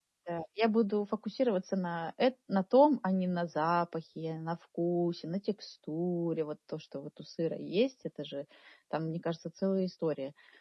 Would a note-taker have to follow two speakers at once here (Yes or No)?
No